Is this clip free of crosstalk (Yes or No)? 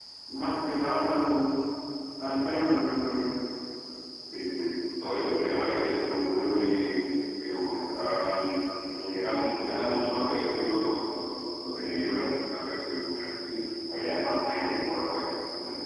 Yes